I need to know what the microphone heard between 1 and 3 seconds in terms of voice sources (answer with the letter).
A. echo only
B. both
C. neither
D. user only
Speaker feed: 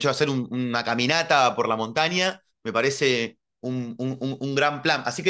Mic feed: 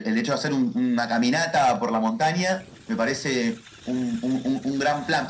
A